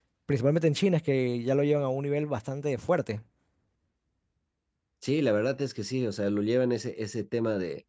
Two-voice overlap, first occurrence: none

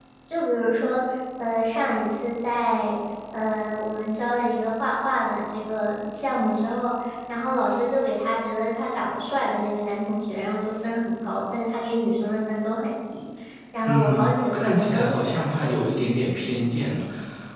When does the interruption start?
13.9 s

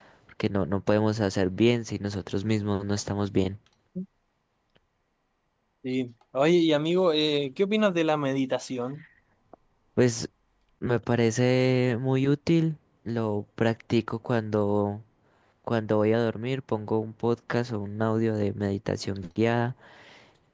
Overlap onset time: none

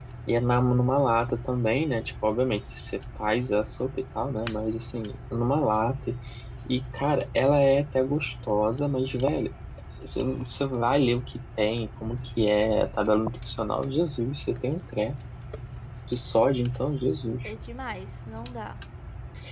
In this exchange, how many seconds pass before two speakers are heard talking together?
none

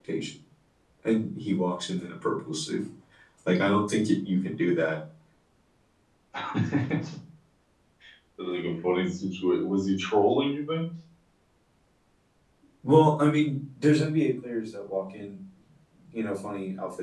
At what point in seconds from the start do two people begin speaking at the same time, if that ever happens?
none

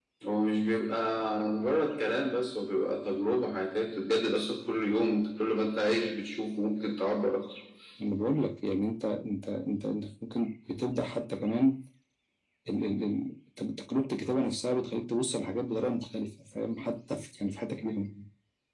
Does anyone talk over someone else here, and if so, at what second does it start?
none

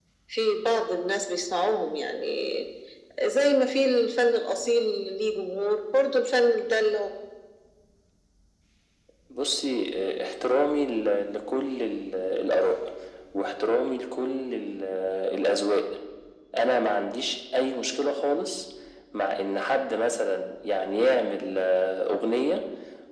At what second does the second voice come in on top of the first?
none

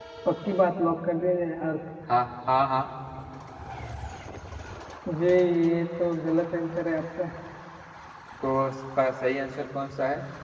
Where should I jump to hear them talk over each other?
none

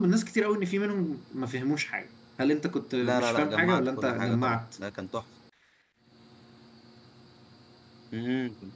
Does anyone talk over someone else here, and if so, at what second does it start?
3.0 s

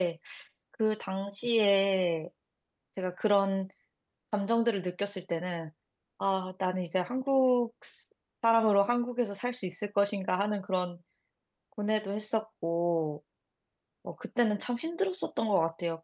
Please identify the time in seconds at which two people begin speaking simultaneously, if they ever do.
none

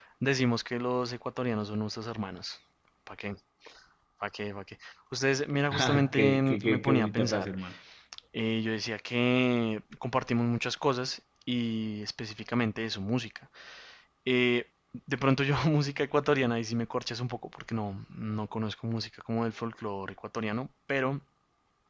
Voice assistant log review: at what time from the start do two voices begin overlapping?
5.7 s

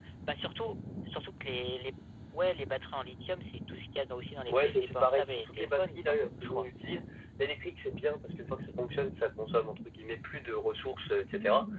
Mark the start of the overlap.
4.5 s

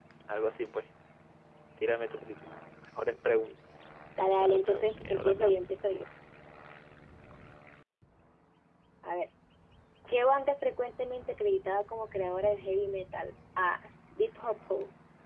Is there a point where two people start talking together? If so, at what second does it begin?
4.4 s

